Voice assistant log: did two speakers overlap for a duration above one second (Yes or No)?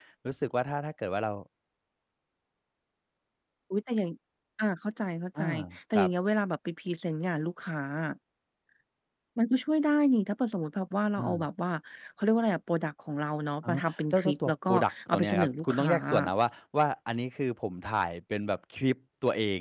Yes